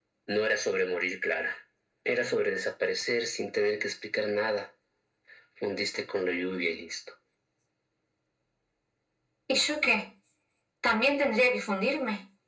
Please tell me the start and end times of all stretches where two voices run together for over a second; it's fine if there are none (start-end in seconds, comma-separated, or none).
none